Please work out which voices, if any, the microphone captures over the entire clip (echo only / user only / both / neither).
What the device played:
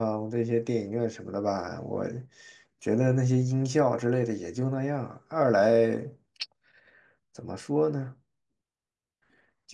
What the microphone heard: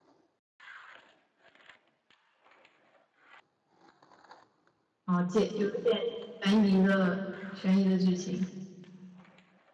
user only